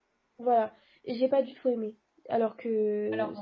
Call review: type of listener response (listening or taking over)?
listening